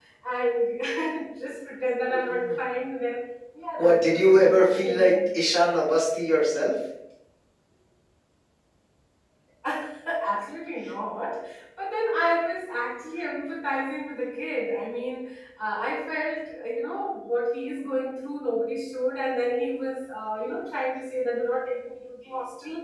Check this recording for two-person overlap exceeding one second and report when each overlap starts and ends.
3.8-5.4

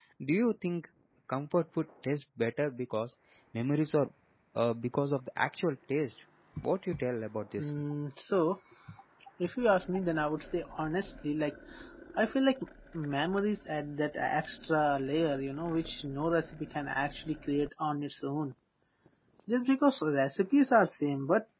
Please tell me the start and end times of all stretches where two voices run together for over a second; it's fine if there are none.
none

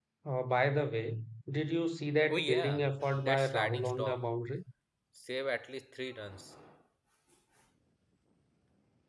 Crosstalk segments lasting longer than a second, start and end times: 2.3-4.2

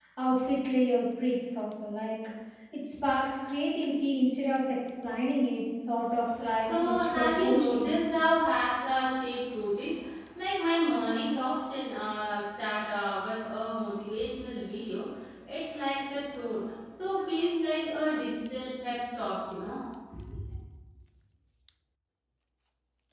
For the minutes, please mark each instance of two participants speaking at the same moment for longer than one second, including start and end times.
6.5-7.9

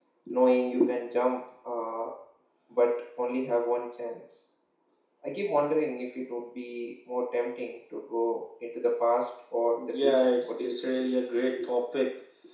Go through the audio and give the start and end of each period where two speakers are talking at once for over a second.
9.8-11.0

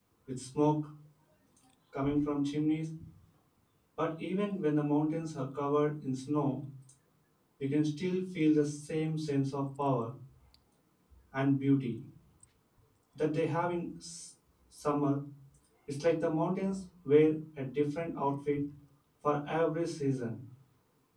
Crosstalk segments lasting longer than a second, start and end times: none

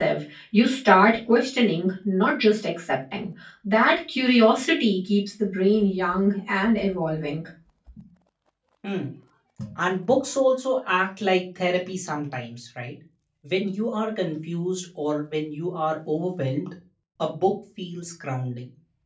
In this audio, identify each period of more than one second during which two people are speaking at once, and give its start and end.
none

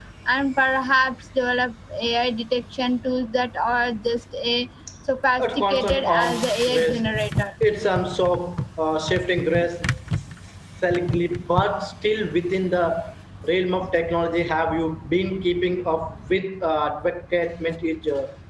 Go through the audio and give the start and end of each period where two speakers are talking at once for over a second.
5.4-7.0

